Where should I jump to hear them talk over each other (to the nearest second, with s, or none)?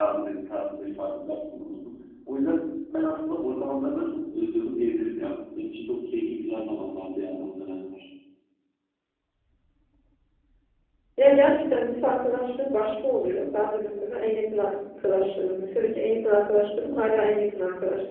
none